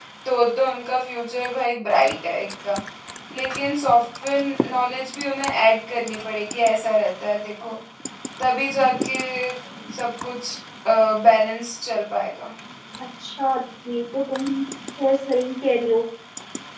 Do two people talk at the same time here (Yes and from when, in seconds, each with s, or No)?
No